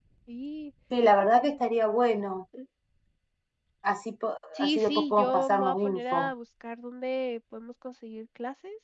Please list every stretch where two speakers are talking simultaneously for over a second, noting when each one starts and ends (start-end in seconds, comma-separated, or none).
4.5-6.3